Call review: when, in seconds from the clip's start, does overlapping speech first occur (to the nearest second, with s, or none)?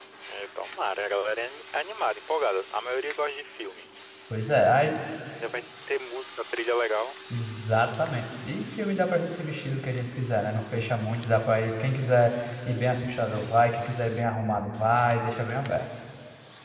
none